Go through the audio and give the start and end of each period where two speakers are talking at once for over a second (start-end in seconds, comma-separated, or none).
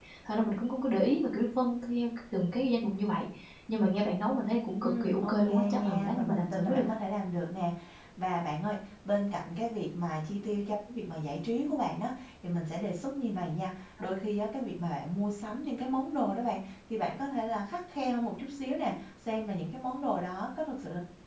4.8-6.8